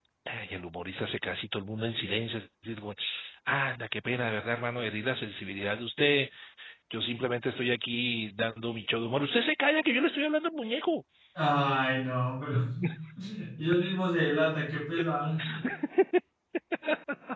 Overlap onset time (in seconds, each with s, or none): none